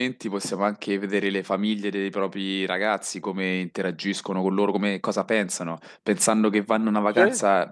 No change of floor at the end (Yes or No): Yes